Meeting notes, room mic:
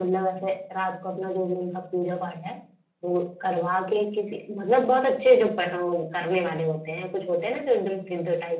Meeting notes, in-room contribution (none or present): none